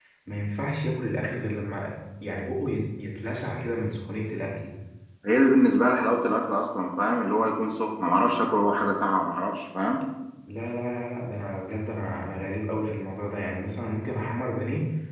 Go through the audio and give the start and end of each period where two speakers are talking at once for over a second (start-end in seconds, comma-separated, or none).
none